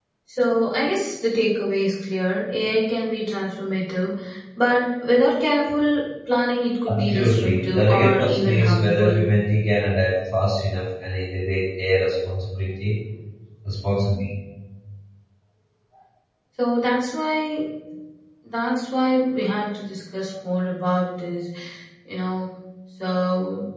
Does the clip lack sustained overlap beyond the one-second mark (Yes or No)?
No